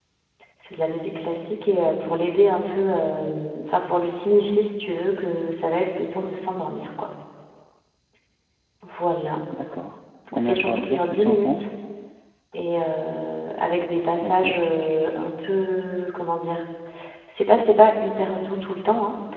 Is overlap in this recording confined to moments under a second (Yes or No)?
No